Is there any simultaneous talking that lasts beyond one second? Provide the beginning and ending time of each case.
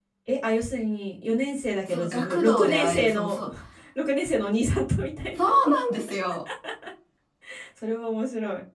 1.9-3.4

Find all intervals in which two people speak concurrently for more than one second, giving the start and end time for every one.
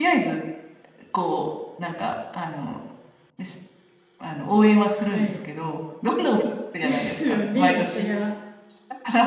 6.8-8.1

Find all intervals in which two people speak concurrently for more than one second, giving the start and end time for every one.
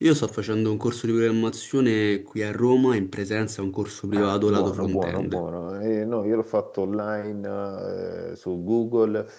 4.1-5.4

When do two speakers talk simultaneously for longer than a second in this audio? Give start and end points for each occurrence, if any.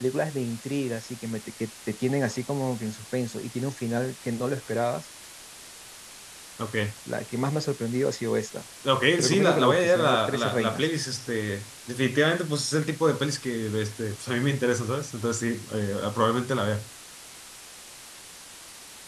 9.2-10.9

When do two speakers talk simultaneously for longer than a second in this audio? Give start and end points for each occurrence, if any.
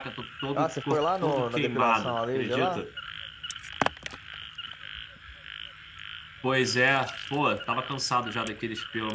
0.6-2.8

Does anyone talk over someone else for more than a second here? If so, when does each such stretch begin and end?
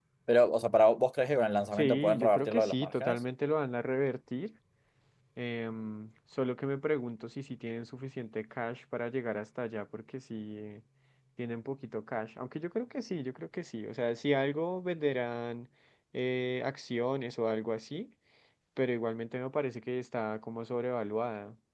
1.7-3.2

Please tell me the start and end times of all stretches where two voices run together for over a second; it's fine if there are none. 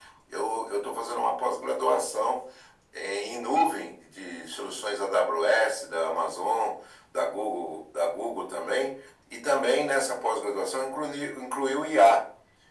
none

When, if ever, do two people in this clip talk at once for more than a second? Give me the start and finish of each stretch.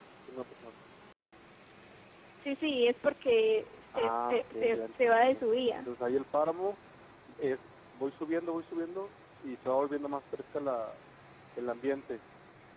4.0-5.8

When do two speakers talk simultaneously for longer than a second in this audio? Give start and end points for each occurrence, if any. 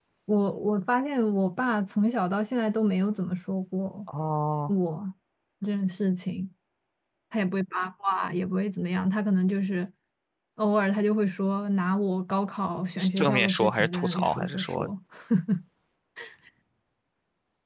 13.0-14.9

